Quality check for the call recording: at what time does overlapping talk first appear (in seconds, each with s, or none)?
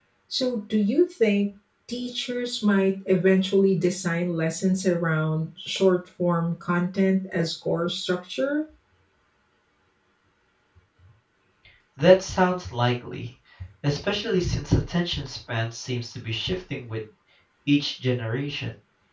none